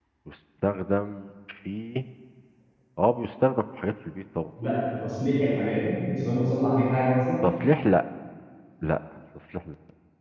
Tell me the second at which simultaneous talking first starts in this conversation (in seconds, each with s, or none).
none